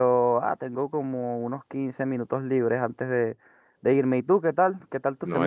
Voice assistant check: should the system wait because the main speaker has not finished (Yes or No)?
No